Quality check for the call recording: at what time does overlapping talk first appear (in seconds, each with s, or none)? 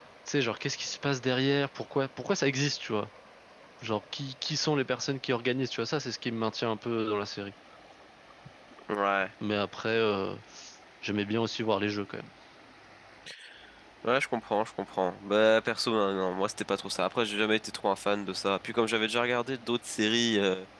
none